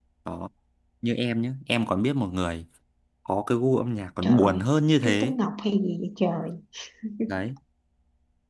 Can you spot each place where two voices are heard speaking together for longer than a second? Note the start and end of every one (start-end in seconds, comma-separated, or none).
none